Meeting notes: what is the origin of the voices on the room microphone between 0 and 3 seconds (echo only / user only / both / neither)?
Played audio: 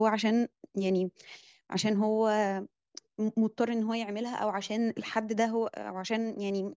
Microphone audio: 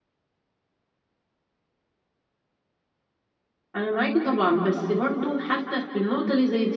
neither